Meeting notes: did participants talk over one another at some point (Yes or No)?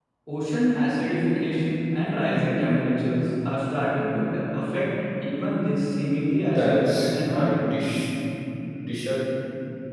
Yes